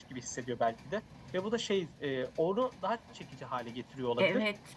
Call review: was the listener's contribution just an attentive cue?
No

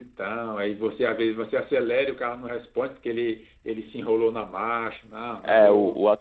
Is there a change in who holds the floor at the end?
Yes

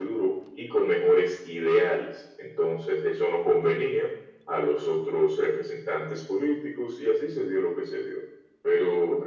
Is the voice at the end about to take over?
No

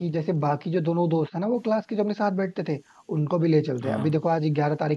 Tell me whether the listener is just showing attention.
Yes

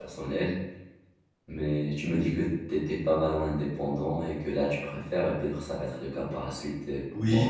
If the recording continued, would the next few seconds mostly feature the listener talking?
Yes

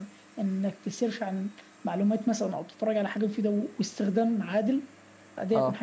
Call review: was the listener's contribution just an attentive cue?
Yes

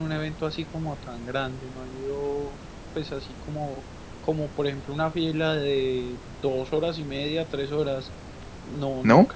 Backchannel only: Yes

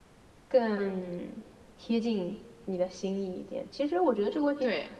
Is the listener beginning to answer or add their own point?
No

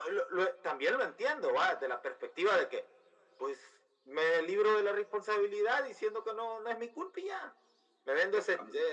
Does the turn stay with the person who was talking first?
Yes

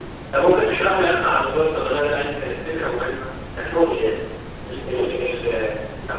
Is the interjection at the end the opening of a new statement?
No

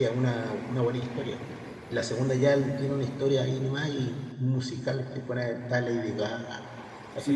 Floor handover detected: Yes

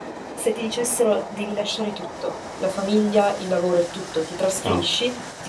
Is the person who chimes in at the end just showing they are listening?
Yes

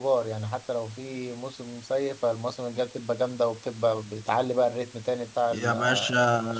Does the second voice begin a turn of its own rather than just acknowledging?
Yes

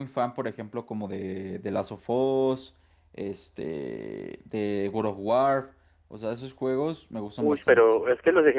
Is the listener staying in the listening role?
No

